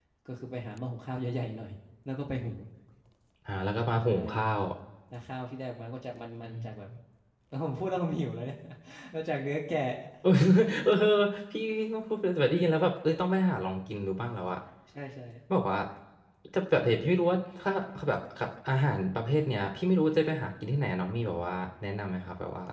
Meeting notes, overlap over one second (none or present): none